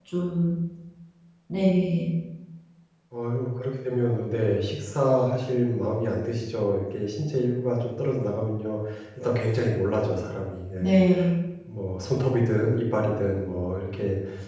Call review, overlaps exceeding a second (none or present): none